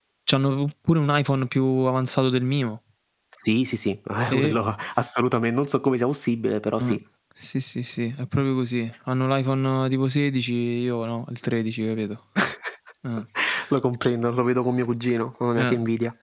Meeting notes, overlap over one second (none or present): none